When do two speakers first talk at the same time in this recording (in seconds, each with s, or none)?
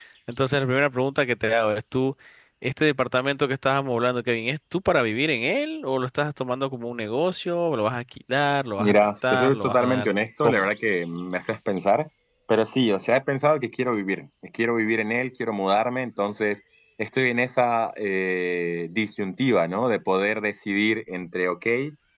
8.8 s